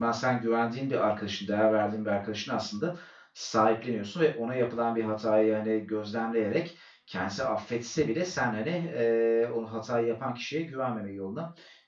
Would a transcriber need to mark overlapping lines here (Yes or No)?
No